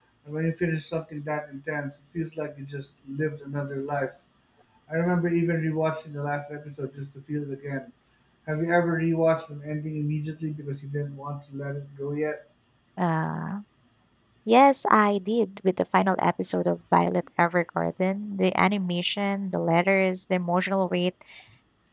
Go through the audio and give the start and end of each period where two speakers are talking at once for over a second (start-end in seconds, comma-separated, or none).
none